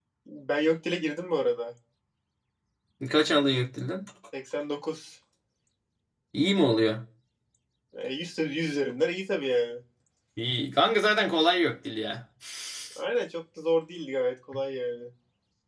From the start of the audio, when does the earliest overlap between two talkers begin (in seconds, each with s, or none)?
none